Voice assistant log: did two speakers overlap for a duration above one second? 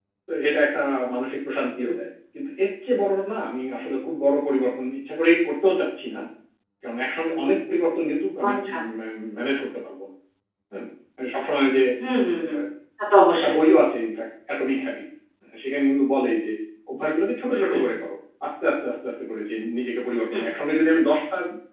No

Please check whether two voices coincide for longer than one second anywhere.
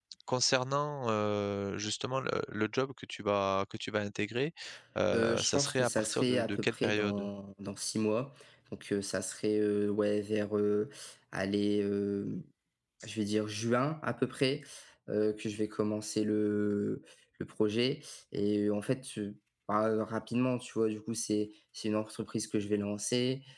Yes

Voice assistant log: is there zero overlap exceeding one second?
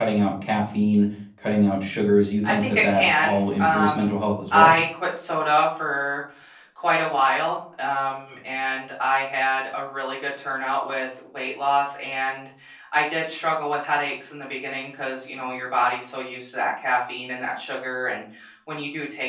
No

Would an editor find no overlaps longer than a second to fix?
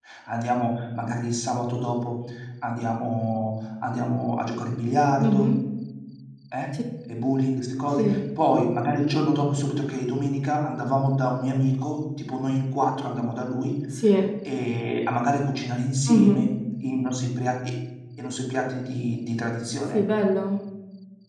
Yes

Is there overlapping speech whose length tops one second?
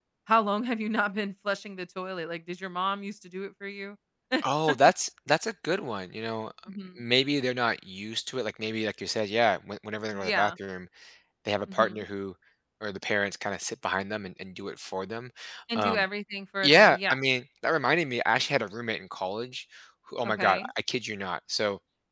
No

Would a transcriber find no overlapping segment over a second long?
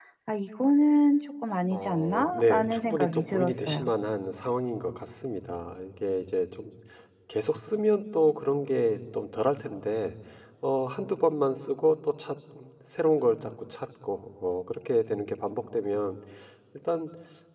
No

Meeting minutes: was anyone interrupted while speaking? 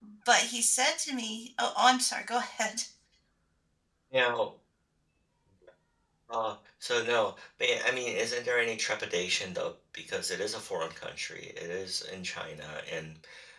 No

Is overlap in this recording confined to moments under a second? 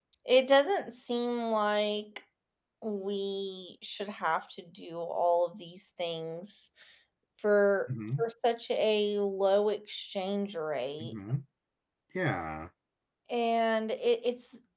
Yes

